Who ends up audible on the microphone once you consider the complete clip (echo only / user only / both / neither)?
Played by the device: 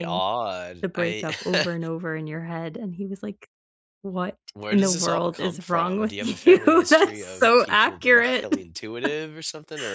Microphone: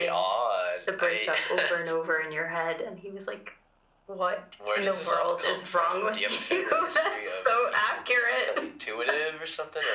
echo only